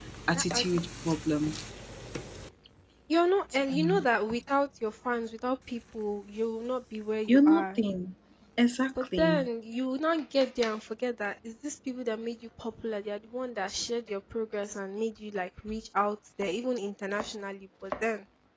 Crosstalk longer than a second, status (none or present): none